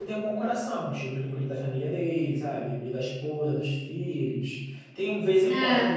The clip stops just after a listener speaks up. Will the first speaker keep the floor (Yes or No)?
Yes